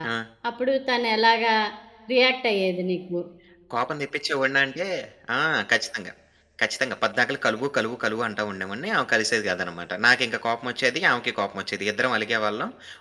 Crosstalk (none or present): none